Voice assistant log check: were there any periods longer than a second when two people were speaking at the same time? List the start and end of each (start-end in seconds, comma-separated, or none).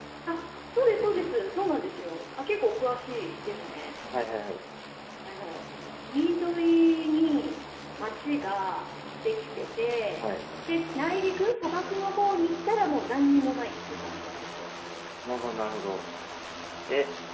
none